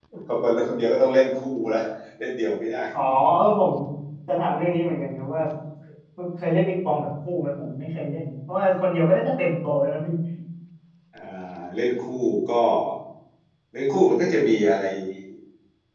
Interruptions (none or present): none